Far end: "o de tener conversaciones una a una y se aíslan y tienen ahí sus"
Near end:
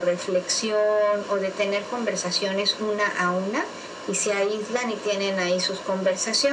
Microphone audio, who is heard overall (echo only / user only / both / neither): echo only